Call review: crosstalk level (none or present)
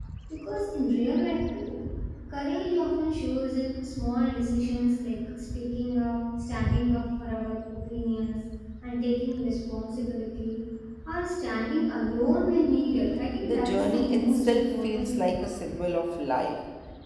present